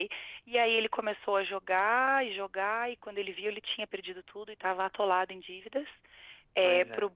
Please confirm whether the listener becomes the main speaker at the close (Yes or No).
No